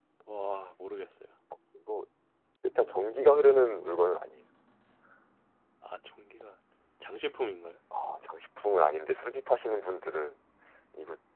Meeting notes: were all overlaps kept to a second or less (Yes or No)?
Yes